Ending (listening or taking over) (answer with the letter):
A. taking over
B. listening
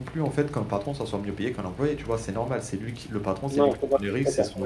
A